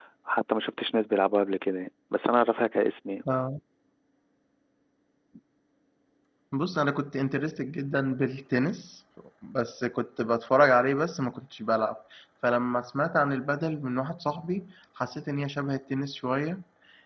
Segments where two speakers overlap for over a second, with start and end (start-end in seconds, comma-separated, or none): none